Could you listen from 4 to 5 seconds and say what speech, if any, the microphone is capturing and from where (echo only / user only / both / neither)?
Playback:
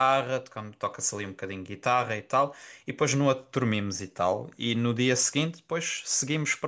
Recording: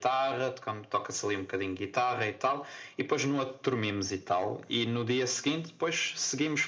echo only